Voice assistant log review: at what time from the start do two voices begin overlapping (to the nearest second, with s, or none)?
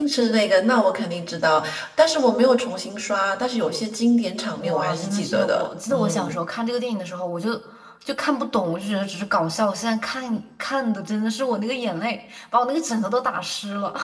5 s